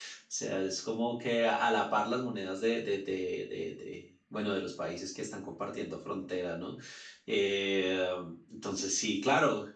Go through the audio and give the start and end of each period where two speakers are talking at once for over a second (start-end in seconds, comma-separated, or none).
none